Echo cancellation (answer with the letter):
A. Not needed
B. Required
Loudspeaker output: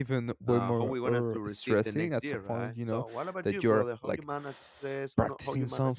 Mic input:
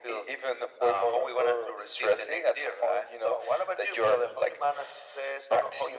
B